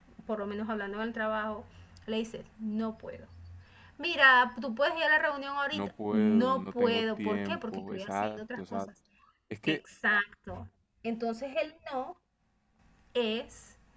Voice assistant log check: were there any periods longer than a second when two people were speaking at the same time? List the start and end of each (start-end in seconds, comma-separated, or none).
5.7-8.9